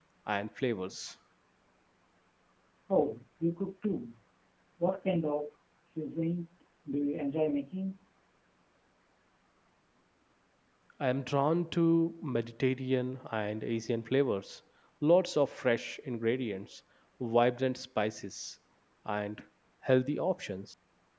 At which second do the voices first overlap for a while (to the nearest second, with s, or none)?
none